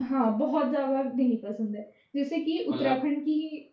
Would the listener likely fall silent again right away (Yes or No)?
Yes